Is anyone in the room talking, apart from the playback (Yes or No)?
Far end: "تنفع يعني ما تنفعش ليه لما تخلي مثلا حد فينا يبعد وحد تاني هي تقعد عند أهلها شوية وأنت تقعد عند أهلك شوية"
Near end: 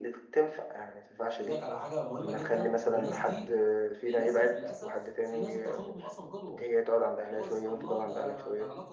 Yes